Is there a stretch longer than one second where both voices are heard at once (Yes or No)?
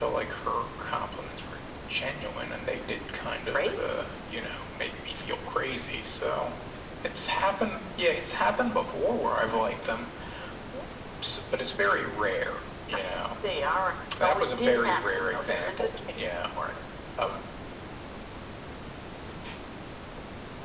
Yes